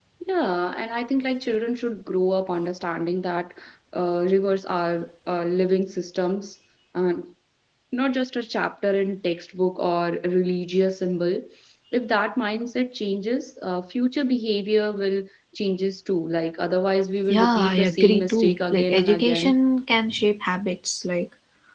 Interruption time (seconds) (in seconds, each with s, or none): 17.3 s